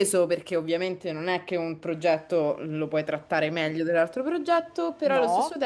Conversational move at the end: listening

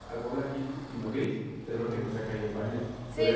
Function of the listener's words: taking over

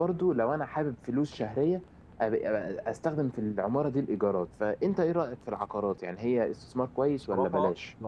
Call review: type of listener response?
taking over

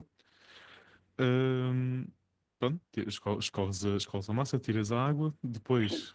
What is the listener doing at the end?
listening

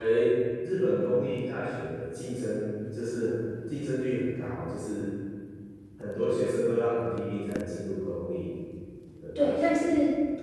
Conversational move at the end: taking over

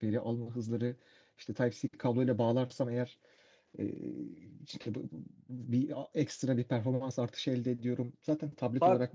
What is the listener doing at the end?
taking over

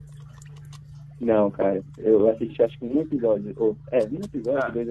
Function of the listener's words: taking over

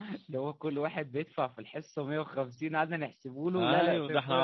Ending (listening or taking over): taking over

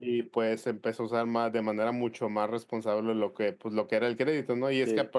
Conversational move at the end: listening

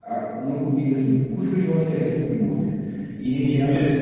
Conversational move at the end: listening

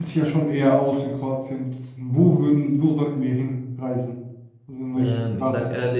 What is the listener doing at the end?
taking over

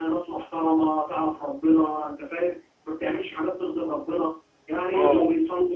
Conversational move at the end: listening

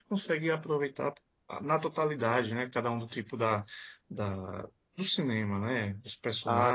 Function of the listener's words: taking over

